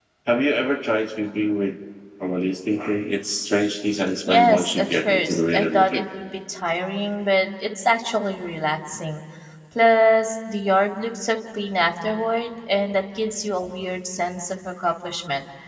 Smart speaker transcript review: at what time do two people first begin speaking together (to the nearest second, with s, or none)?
4 s